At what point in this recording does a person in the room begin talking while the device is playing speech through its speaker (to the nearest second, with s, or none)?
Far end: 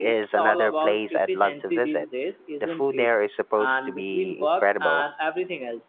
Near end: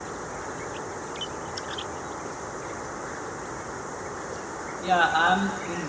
5 s